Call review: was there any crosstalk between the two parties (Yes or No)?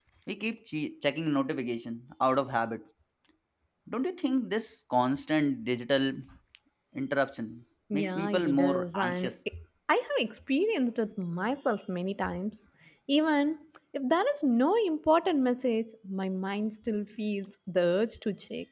Yes